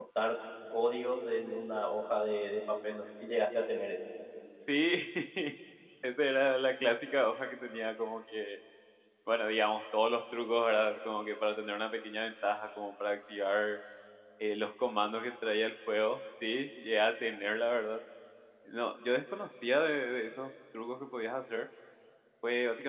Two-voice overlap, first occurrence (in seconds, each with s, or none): none